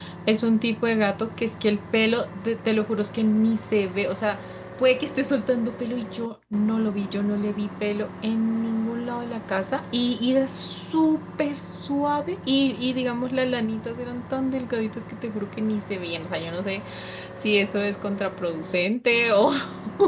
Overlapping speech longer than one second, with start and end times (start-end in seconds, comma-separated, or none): none